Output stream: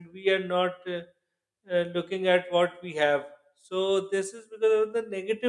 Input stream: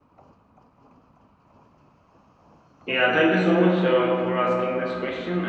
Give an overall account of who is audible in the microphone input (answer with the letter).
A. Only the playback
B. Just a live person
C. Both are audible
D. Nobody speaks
B